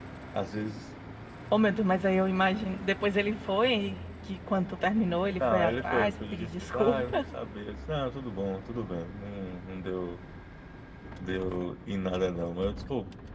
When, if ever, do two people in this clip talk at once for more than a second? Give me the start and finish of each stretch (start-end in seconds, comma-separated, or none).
5.4-7.2